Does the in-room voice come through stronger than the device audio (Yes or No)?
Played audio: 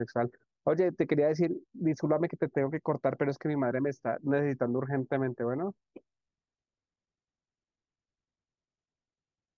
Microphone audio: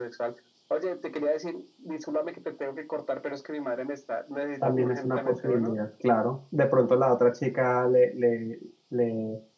Yes